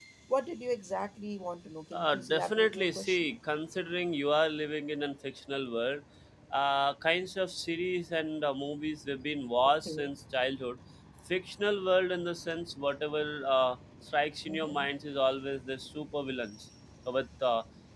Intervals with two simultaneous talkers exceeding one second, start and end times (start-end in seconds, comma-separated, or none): 1.9-3.3